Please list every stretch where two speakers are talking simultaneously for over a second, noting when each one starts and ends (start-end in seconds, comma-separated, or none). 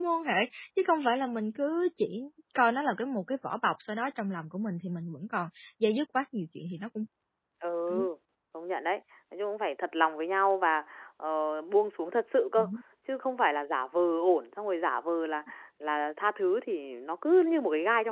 none